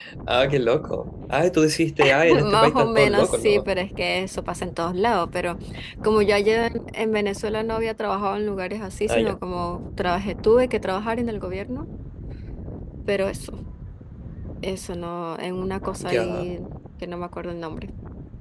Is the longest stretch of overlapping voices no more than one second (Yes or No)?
No